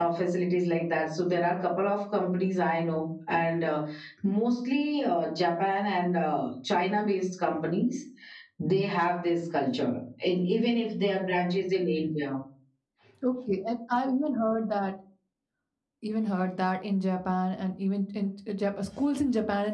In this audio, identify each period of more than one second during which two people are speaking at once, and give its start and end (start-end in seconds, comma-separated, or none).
none